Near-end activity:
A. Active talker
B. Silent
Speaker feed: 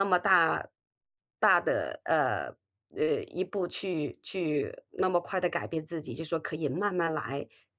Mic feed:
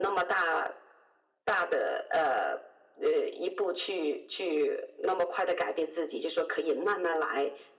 B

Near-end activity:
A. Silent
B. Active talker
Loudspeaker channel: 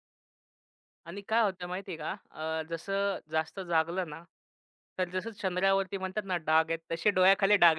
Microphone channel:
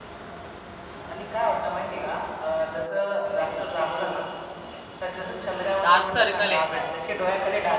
B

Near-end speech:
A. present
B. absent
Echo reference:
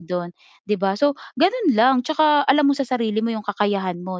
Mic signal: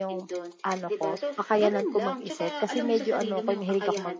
A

